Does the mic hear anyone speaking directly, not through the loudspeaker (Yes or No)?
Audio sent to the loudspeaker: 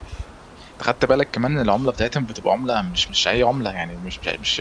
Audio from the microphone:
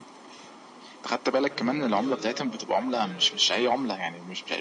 Yes